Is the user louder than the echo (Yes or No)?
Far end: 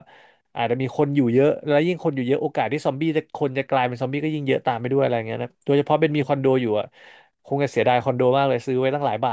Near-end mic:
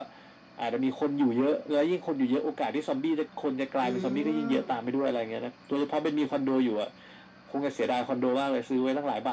No